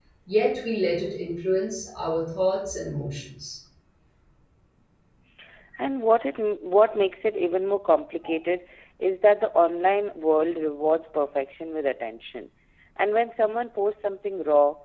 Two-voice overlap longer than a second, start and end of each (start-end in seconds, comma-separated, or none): none